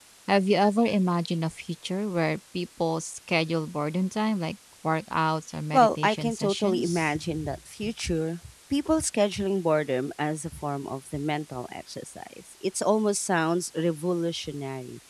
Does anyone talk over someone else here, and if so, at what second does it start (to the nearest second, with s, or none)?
6 s